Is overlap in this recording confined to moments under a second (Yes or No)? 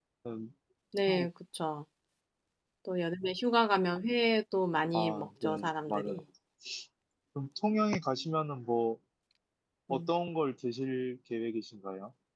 No